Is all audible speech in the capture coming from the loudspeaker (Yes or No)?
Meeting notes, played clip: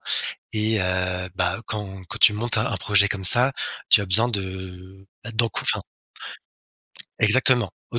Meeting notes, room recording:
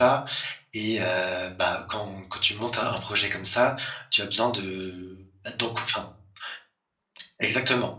Yes